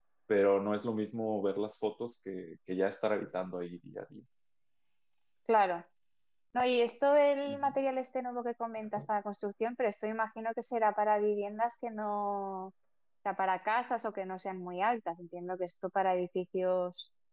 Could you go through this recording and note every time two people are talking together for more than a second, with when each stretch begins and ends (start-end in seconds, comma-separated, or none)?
none